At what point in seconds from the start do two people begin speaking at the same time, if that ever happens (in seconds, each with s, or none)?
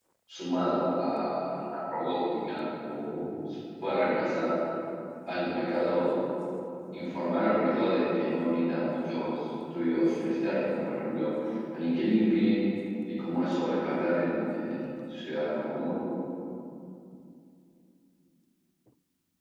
none